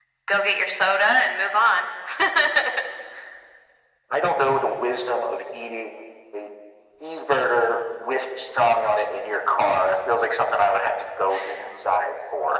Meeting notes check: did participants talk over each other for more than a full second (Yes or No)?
No